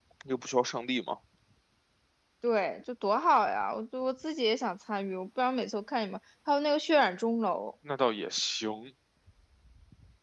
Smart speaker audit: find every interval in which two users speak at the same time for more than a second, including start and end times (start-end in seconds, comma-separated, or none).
none